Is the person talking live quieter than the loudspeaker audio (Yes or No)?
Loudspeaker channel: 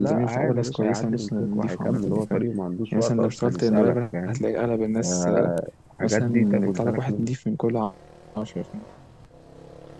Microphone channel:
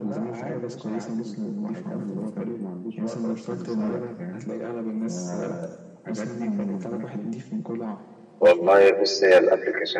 No